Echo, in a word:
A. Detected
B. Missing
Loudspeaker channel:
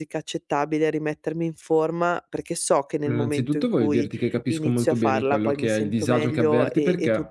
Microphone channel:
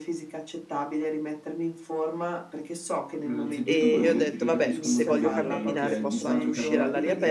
A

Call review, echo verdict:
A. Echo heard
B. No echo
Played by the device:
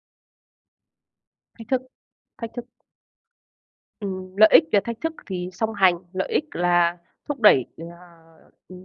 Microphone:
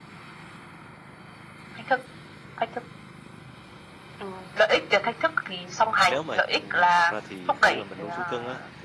A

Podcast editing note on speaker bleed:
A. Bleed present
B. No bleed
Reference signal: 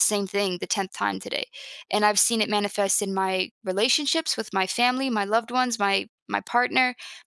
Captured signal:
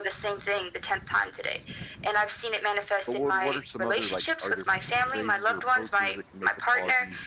A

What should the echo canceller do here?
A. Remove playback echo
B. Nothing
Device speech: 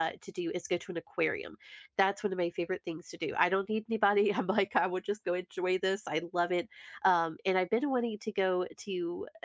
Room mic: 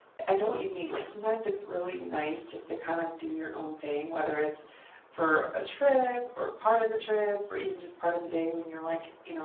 B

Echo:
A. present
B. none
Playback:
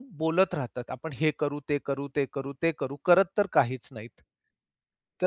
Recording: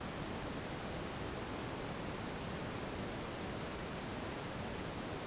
B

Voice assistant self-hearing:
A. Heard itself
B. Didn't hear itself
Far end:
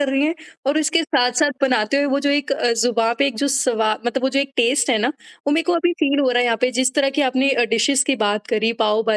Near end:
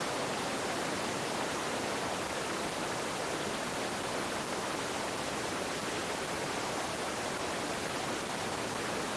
B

